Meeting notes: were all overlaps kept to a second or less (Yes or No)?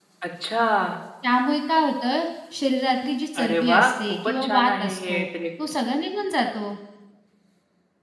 No